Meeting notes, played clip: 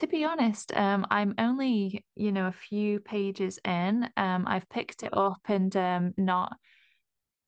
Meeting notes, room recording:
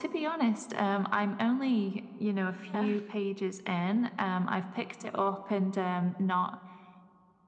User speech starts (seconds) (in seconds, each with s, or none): 2.5 s